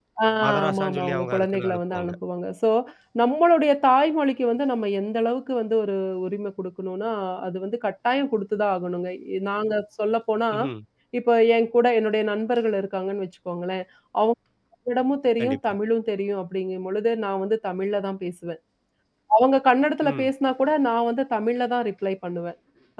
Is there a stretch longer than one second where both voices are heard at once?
Yes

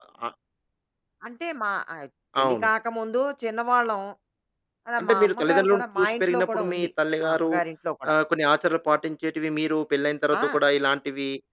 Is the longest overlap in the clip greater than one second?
Yes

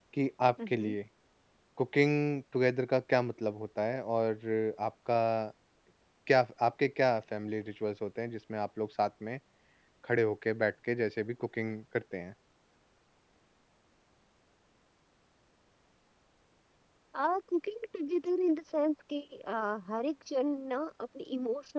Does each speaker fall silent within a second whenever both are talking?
Yes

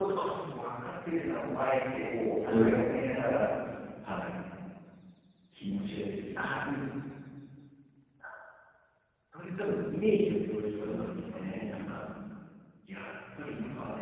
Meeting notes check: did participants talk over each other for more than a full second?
Yes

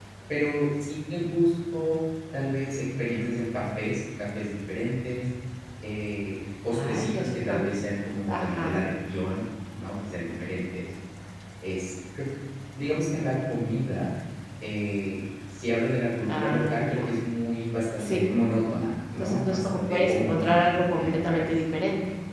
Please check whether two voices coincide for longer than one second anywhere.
Yes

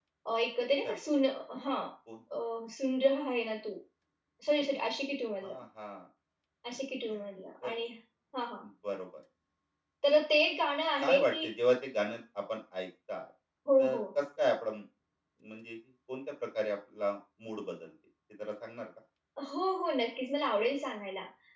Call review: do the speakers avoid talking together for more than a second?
Yes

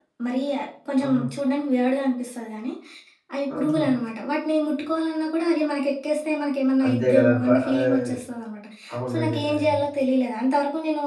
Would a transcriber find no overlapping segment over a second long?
No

